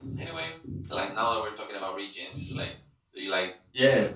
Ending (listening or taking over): taking over